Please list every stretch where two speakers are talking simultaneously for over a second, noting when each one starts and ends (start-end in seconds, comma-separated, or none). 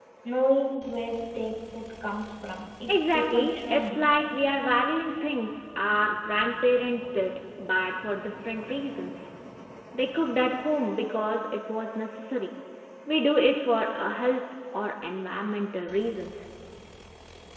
2.9-4.1